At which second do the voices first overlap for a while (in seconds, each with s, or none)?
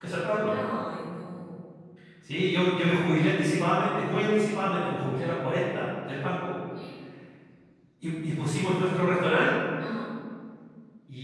none